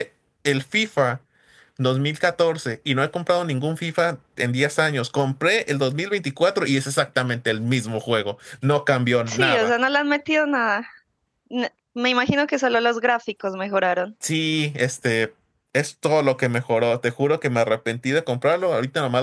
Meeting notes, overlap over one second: none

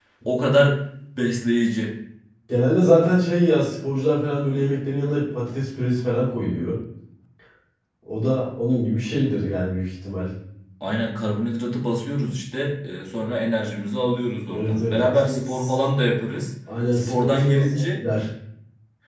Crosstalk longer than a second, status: present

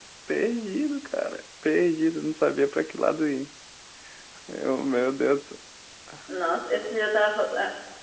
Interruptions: none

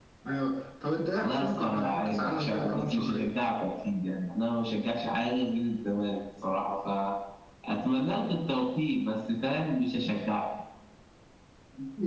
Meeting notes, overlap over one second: present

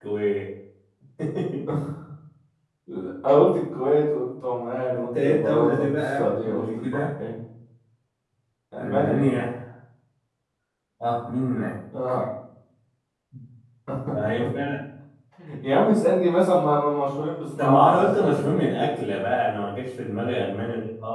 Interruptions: present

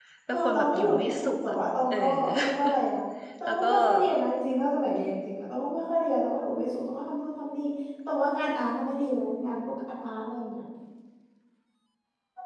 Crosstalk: present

